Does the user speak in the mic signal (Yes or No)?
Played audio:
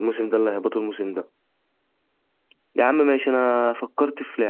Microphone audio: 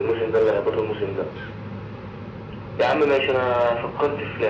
No